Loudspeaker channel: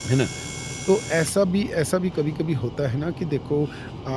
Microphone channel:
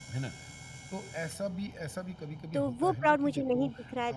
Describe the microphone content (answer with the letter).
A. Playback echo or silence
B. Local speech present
B